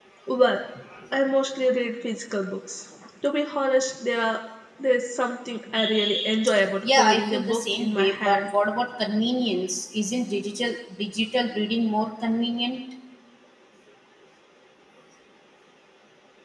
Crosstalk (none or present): present